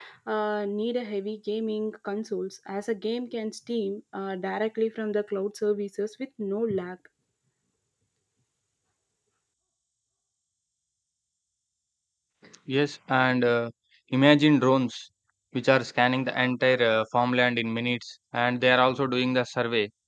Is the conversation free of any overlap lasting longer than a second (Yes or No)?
Yes